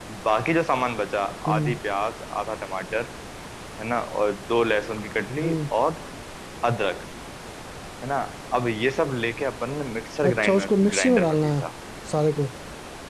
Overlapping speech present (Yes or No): Yes